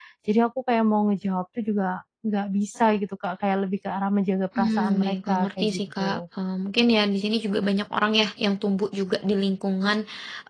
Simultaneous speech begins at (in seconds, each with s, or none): 4.6 s